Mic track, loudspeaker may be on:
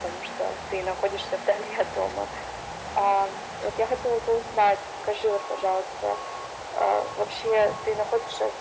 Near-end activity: none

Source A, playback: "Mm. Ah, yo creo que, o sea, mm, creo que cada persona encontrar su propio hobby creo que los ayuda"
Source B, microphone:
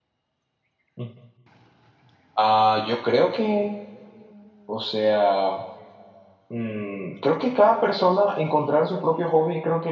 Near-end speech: none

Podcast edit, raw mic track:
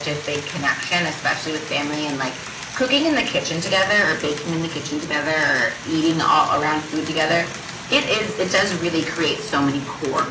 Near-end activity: none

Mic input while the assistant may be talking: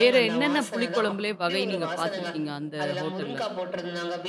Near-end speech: present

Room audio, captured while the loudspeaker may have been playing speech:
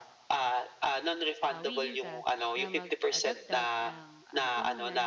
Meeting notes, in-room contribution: present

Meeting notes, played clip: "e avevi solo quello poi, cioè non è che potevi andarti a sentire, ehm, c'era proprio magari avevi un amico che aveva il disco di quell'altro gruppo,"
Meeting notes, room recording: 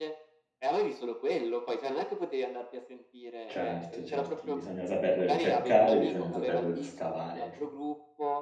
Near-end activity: present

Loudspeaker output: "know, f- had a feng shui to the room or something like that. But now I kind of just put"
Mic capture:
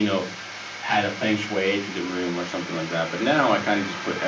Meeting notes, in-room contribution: none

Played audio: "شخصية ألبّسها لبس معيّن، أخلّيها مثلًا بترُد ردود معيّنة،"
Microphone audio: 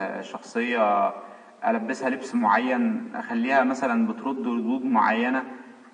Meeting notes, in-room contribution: none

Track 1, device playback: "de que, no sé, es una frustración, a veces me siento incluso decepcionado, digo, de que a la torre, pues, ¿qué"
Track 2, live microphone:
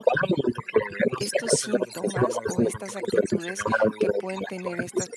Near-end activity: present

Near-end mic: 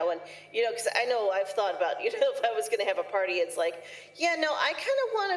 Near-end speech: none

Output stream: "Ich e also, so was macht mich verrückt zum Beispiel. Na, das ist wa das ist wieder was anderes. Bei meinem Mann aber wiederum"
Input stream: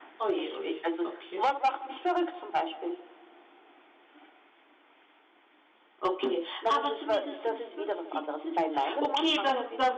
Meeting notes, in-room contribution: present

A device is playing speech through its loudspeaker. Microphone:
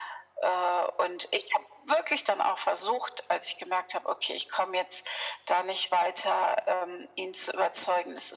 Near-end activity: none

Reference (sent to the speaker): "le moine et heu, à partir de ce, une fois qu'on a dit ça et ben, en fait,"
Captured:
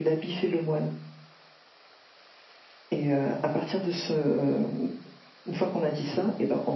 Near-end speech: none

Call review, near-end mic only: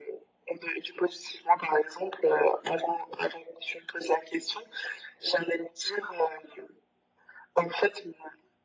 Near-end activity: none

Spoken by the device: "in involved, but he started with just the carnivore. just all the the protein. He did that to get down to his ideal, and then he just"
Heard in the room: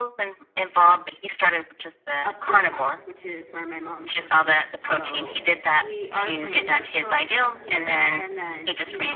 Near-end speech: present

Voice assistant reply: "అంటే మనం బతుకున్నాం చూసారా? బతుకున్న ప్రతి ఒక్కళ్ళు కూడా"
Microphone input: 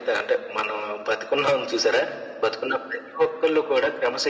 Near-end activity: none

